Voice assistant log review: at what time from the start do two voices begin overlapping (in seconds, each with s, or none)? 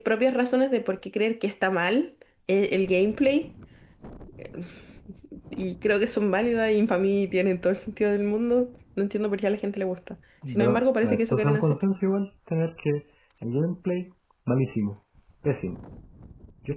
10.4 s